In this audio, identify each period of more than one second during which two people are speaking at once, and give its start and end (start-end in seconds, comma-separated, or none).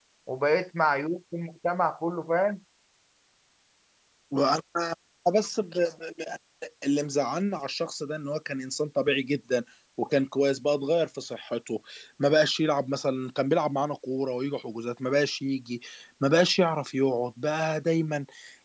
none